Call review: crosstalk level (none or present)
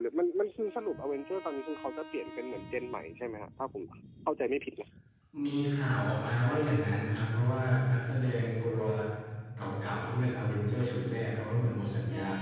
none